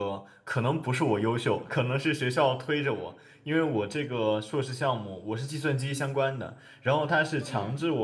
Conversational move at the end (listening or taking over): listening